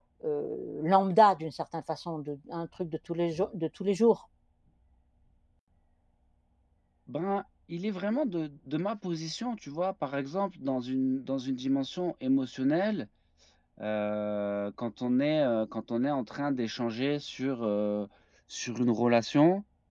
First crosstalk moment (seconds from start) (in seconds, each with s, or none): none